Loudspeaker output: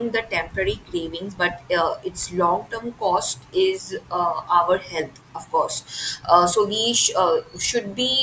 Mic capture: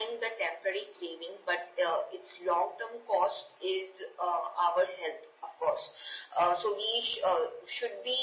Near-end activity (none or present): none